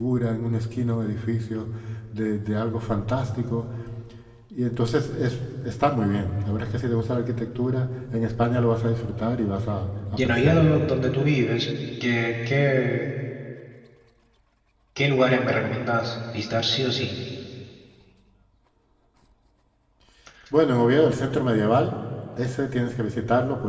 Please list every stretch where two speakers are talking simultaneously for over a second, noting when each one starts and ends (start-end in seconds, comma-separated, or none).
none